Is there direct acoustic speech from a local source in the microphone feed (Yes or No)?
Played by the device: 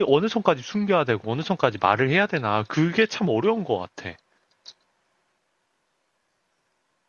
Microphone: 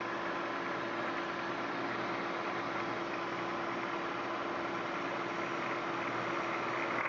No